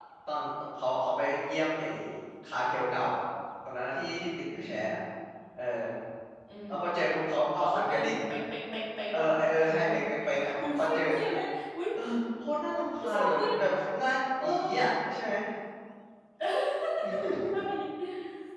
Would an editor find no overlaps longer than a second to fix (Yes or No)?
No